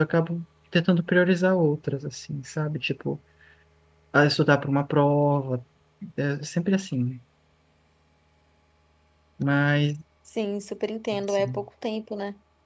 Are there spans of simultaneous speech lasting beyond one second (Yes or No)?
No